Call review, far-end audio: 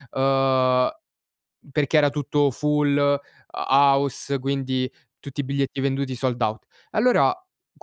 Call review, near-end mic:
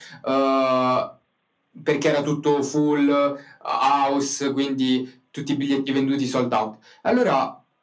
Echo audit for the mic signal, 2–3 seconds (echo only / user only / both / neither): echo only